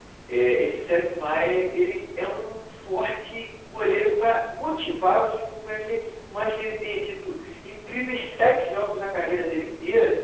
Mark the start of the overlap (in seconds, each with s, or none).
none